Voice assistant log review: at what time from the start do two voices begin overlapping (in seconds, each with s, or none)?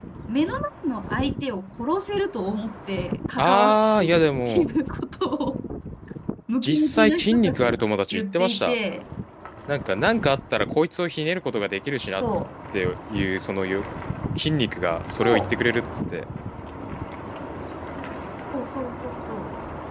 3.4 s